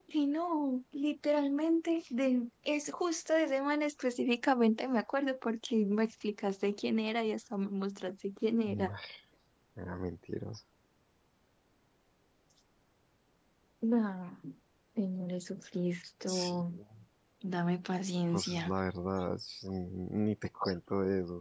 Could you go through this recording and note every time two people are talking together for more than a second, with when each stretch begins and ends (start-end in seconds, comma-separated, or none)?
none